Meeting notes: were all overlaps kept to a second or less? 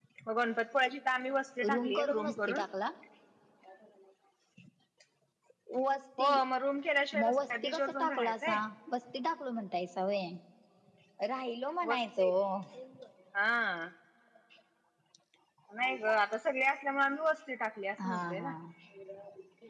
No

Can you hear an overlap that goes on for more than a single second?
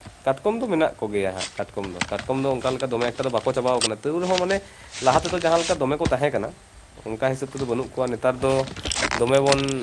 No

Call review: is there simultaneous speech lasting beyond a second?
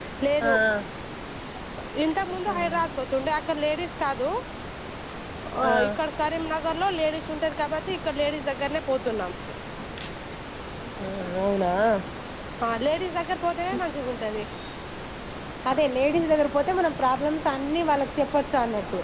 No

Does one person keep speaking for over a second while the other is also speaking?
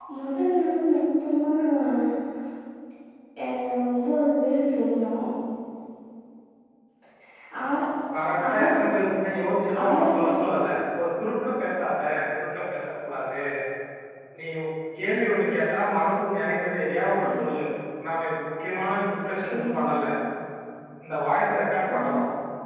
No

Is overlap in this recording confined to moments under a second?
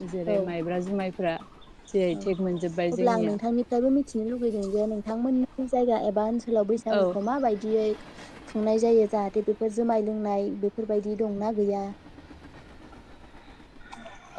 Yes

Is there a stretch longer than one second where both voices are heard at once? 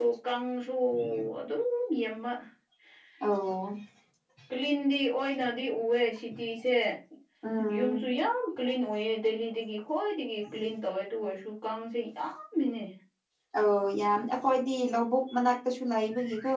No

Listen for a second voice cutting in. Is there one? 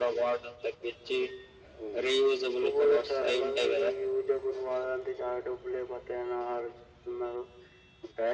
Yes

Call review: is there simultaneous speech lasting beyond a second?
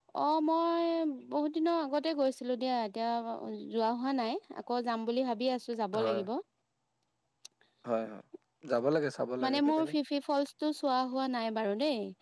No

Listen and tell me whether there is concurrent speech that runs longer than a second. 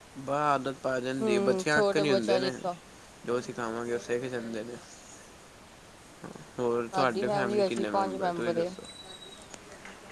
Yes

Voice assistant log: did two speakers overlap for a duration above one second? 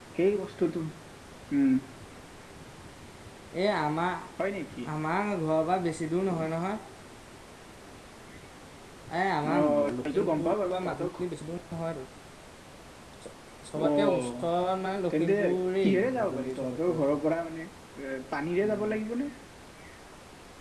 Yes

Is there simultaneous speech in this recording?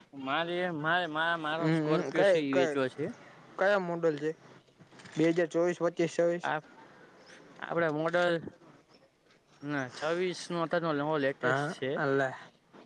Yes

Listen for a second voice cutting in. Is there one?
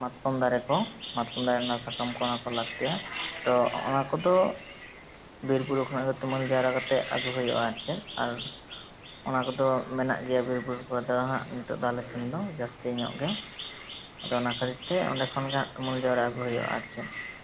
No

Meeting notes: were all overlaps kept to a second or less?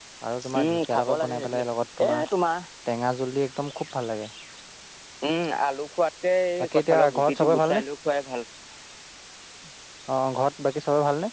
No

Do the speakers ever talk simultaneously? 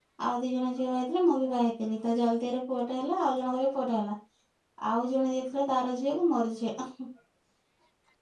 No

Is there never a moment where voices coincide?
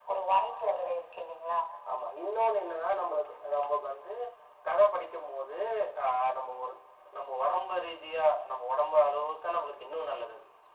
Yes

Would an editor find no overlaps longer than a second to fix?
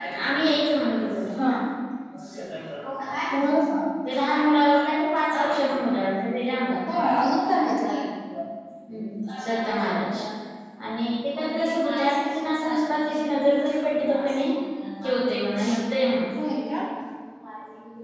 Yes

